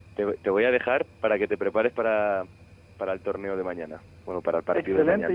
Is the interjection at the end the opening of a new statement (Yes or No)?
Yes